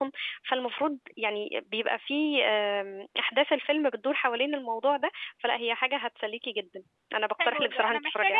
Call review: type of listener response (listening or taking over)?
taking over